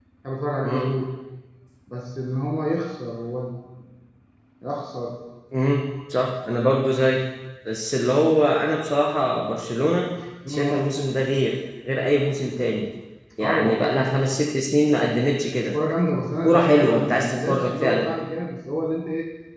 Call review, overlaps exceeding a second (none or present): present